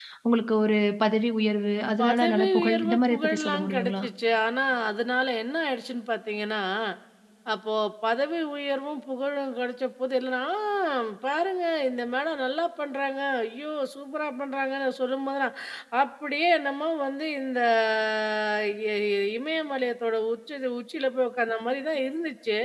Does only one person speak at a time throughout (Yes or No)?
No